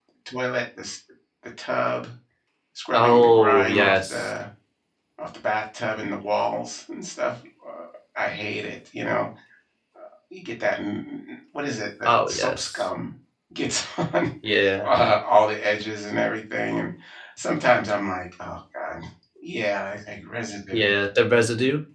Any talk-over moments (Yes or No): Yes